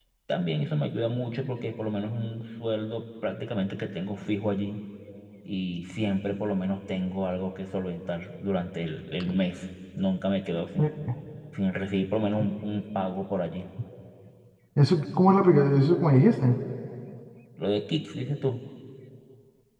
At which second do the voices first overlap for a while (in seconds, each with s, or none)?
none